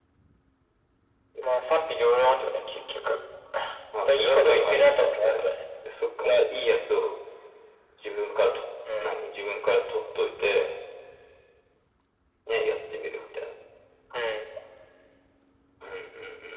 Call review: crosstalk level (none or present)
present